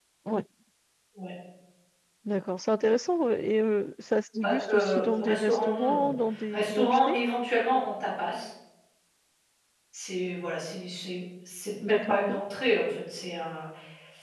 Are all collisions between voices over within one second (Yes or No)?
No